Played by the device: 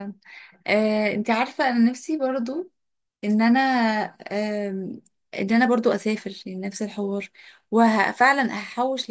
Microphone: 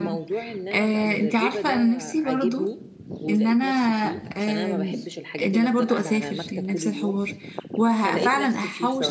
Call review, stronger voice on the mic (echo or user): echo